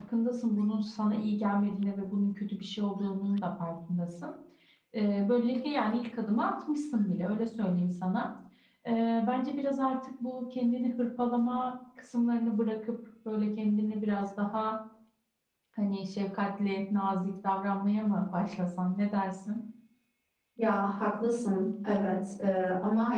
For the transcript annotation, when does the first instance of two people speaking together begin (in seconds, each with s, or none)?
none